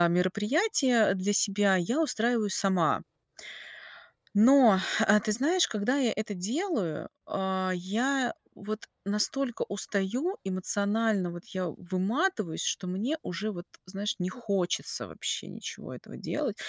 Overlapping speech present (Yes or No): No